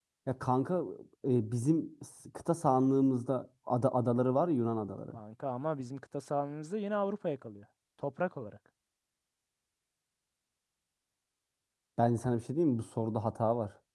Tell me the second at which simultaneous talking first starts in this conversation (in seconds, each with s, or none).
none